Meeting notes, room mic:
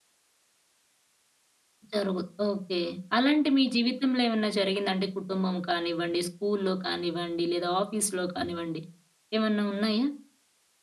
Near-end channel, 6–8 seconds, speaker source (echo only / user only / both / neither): user only